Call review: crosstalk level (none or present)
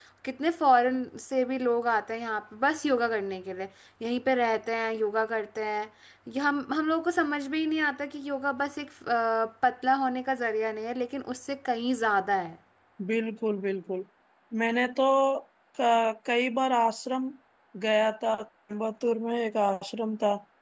none